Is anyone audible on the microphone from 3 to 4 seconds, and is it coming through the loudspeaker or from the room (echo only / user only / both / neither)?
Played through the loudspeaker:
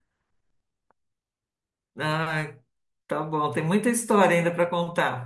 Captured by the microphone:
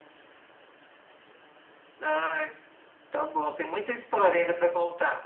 echo only